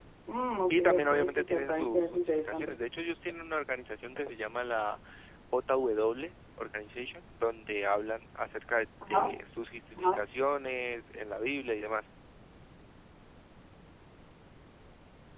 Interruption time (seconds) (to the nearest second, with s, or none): 1 s